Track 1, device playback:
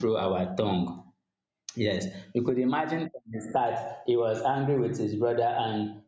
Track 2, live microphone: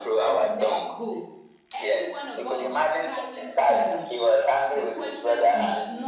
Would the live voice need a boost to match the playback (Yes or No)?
Yes